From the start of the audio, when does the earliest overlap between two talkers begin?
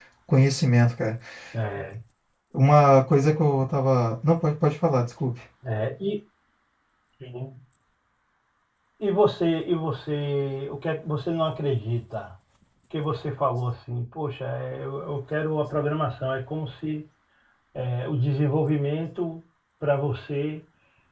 none

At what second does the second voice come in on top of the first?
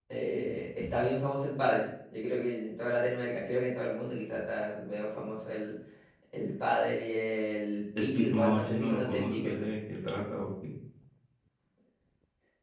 8 s

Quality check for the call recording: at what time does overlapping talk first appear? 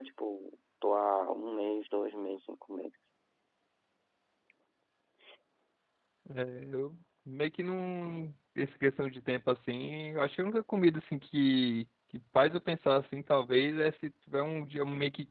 none

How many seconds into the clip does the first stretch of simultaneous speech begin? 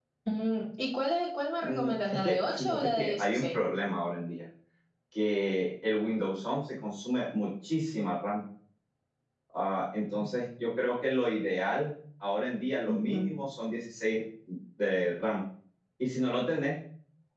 2 s

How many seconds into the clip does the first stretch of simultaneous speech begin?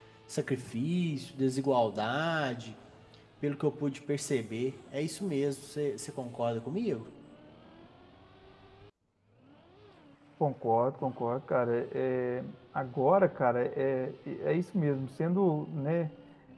none

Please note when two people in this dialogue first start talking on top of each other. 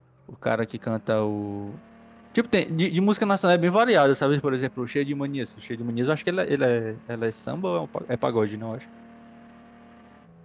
none

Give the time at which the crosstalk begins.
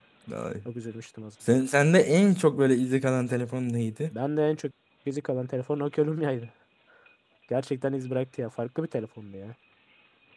none

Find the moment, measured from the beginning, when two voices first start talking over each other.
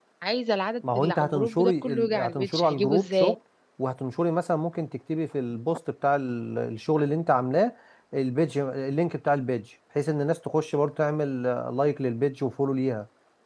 1 s

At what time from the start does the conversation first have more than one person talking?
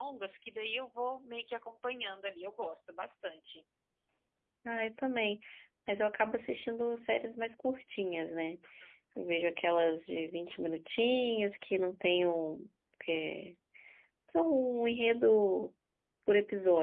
none

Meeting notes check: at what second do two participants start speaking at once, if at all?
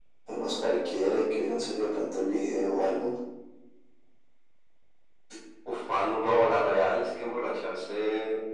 none

